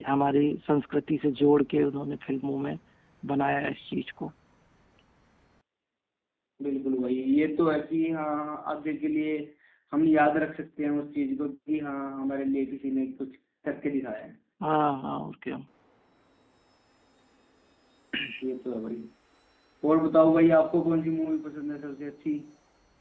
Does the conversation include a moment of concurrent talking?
No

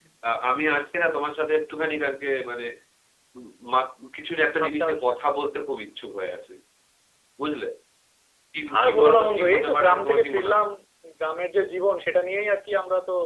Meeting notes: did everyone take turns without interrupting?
No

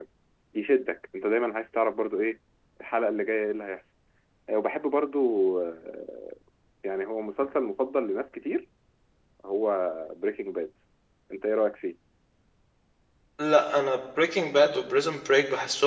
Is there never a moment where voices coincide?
Yes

